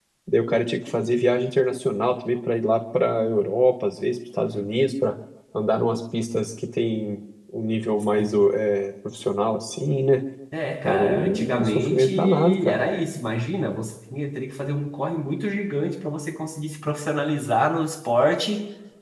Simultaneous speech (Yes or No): Yes